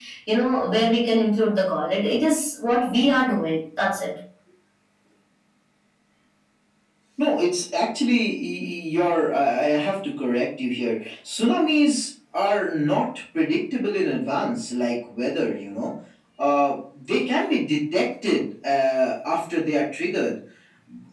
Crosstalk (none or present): none